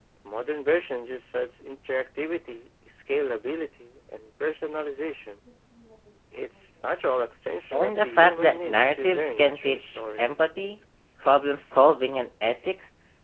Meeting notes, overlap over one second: present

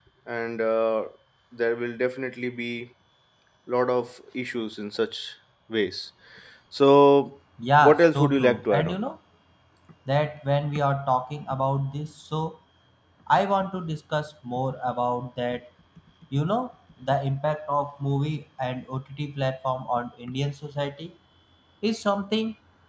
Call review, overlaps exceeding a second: present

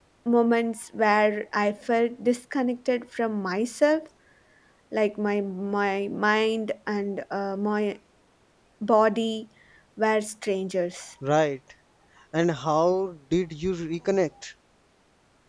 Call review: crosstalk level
none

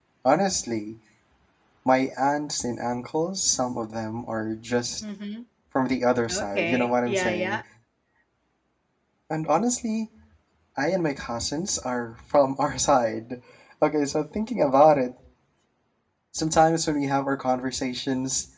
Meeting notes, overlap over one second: present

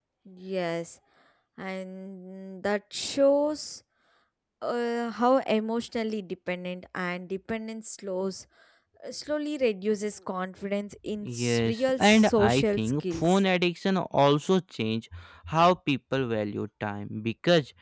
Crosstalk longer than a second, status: present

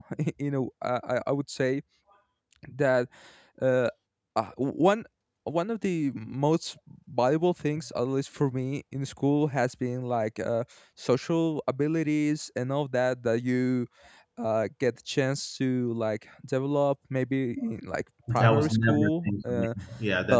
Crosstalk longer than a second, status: present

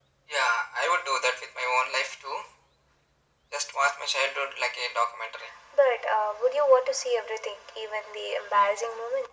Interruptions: none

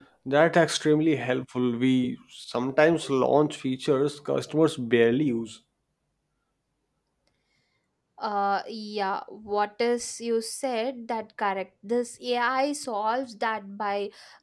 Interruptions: none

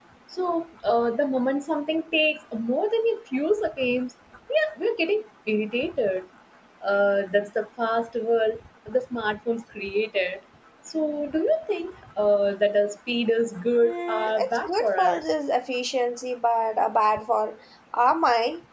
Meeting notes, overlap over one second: present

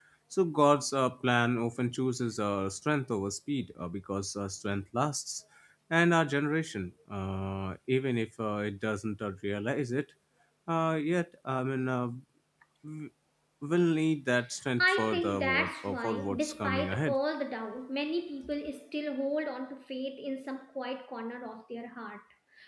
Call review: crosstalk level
present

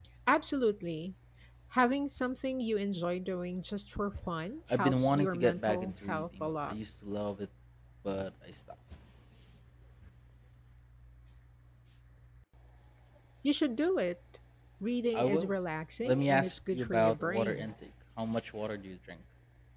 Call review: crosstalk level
present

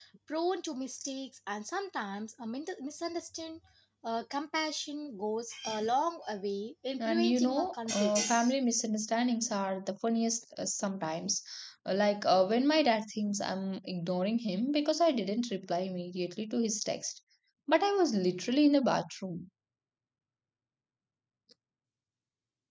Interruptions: present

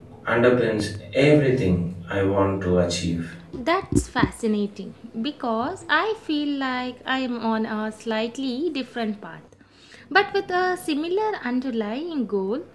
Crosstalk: none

